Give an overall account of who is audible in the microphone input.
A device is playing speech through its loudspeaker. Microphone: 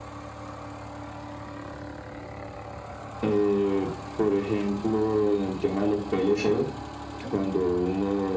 echo only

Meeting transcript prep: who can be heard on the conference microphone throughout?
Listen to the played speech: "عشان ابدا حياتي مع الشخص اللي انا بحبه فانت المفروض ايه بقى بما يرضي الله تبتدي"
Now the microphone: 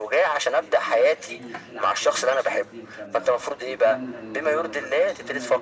both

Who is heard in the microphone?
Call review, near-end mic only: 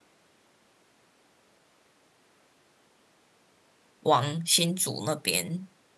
user only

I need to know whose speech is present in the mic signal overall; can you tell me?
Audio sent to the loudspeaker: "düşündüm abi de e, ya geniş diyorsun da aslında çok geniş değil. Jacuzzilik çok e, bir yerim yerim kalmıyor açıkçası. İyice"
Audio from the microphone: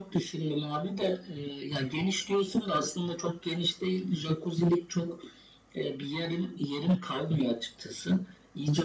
echo only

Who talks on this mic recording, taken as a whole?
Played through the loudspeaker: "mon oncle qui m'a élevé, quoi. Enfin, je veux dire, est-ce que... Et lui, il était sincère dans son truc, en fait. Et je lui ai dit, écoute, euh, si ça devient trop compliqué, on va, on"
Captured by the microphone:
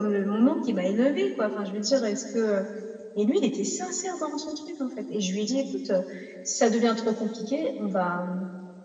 echo only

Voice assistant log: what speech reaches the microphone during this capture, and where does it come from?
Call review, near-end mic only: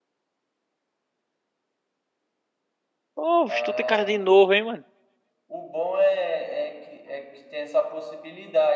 both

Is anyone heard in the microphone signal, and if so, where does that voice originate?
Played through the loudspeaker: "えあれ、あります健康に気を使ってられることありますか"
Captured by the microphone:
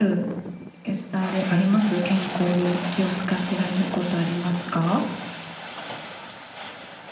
echo only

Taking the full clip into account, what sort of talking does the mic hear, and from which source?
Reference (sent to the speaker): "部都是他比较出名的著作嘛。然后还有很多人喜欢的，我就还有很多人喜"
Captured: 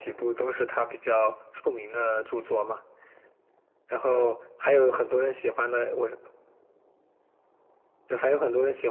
echo only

